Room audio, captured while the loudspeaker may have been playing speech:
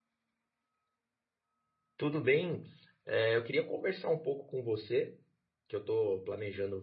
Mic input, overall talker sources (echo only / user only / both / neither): user only